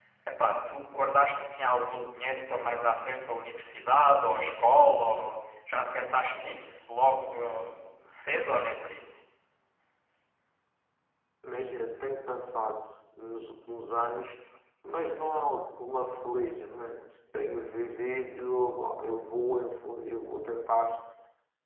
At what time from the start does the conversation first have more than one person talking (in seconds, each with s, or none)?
none